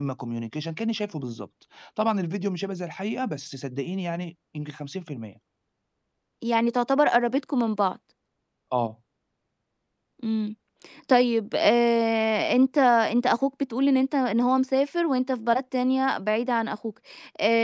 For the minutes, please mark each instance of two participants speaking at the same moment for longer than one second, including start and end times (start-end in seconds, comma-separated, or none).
none